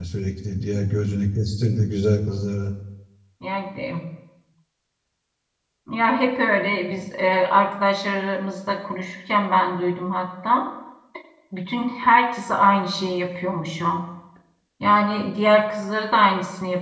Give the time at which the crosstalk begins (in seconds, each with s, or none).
none